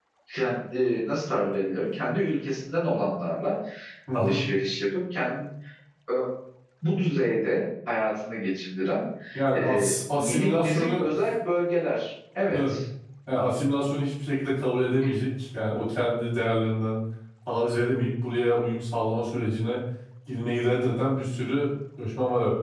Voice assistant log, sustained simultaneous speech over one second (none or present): present